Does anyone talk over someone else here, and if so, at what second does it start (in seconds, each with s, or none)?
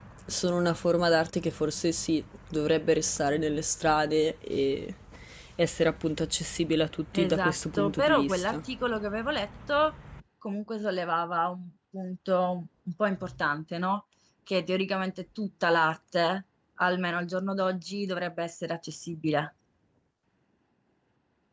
7.1 s